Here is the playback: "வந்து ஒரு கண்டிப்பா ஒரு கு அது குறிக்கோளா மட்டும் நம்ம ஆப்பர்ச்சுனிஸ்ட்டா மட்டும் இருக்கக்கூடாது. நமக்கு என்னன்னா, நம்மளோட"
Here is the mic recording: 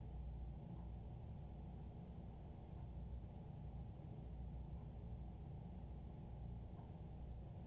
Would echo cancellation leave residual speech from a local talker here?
No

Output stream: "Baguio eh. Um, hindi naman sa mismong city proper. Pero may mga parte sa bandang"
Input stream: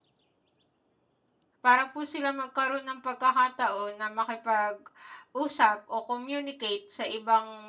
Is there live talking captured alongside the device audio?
Yes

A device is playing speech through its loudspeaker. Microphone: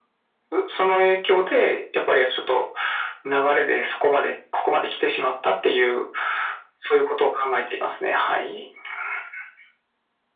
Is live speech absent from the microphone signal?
Yes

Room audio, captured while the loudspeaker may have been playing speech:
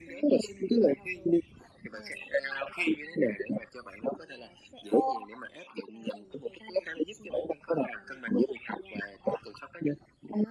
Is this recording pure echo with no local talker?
Yes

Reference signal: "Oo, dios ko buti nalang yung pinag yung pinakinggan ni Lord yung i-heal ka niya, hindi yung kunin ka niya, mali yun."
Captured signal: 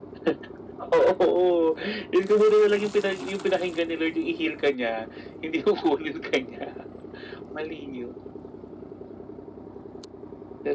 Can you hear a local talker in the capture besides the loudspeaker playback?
No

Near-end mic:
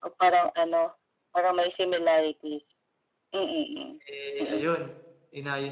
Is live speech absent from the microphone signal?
No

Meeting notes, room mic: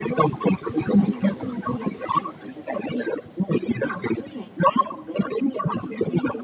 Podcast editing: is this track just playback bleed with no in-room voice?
No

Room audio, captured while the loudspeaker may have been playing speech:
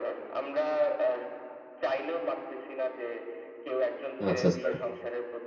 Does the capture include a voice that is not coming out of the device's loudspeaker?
Yes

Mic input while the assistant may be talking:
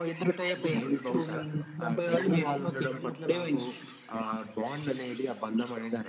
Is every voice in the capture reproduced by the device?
Yes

